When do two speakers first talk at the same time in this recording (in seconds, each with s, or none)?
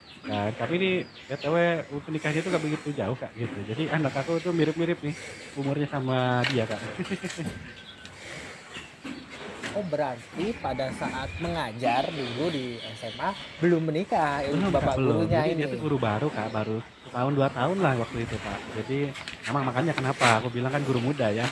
14.5 s